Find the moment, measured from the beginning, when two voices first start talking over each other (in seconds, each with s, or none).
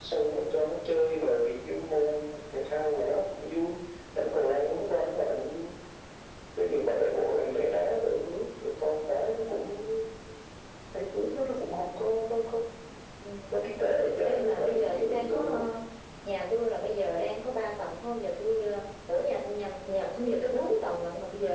14.2 s